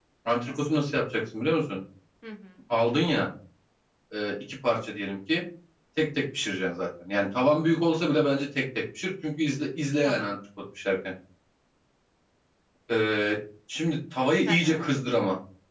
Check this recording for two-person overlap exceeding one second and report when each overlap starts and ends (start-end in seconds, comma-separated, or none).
none